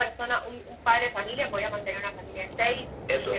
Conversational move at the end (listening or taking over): taking over